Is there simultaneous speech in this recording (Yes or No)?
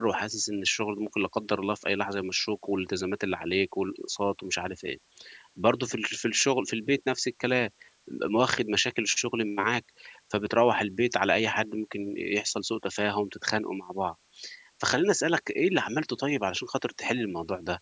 No